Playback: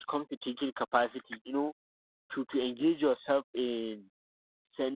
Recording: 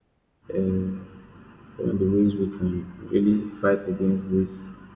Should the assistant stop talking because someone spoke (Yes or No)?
Yes